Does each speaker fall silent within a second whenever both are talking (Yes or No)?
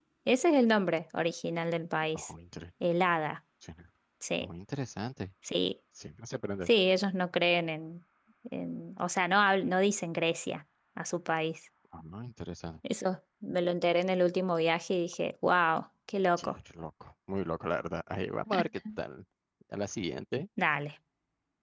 Yes